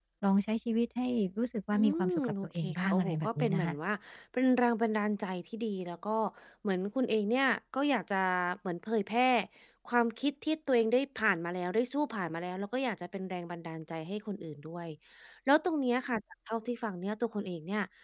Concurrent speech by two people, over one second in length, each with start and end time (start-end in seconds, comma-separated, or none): 1.7-3.8